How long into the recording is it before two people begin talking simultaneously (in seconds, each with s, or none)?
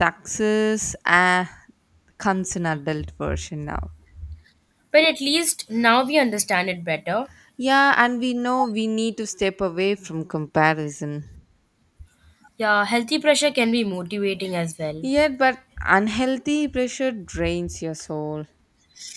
none